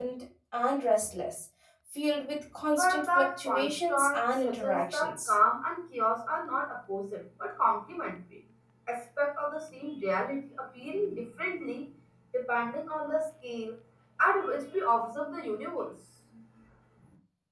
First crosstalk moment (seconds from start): 2.8 s

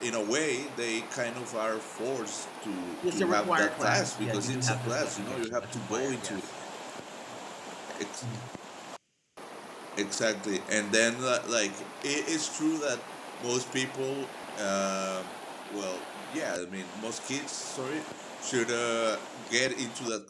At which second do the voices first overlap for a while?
3.0 s

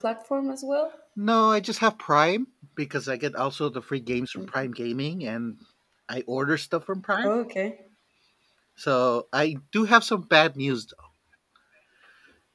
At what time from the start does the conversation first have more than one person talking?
none

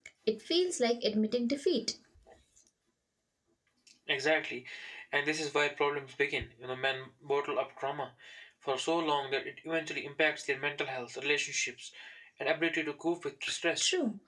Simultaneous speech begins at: none

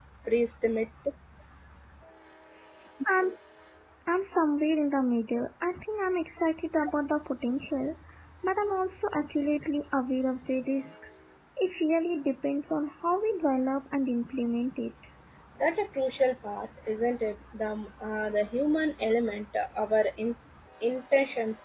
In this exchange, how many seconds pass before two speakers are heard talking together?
none

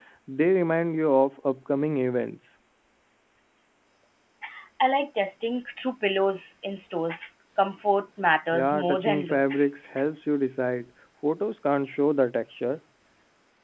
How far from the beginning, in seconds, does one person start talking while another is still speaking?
8.5 s

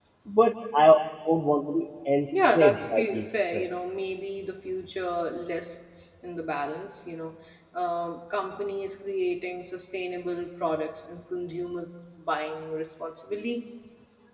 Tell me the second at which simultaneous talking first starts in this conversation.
2.3 s

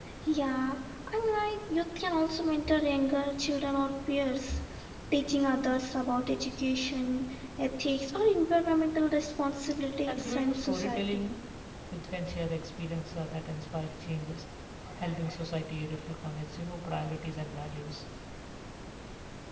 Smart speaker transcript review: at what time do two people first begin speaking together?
10.1 s

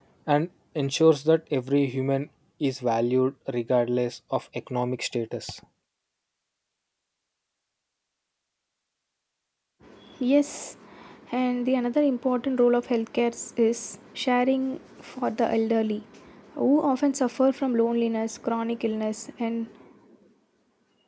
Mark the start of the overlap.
none

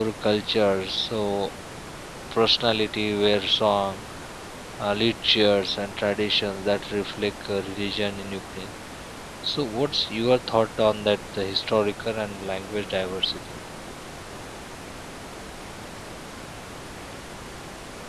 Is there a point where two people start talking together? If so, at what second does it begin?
none

